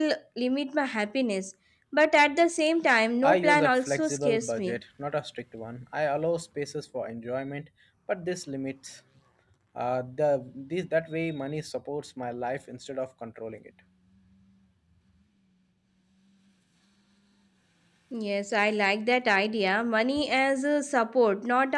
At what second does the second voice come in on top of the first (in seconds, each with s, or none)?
3.2 s